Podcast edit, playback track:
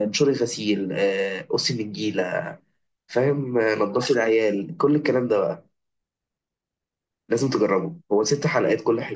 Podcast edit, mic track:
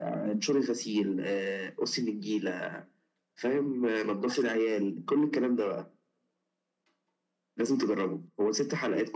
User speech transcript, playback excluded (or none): none